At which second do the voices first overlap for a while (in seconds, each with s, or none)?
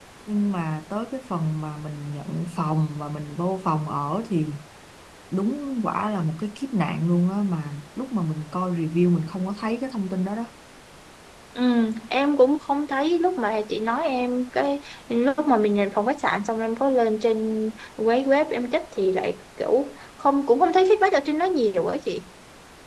none